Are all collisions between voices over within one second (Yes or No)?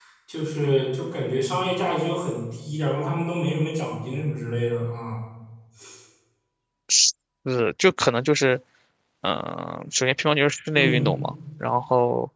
Yes